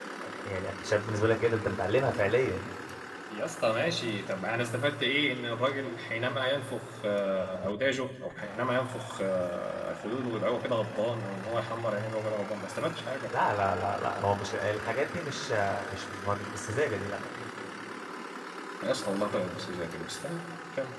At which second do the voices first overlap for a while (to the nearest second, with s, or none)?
none